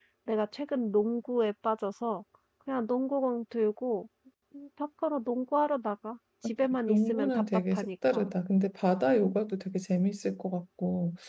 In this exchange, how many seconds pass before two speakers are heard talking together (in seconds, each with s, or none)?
6.6 s